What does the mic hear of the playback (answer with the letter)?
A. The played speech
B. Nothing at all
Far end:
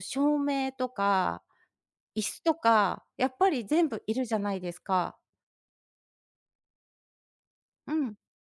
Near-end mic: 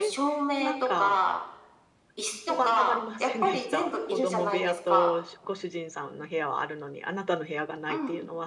A